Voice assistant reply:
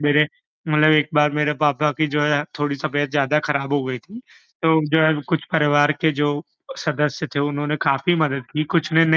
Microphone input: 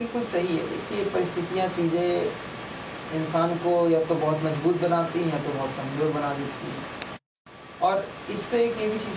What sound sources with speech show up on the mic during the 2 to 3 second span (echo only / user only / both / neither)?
user only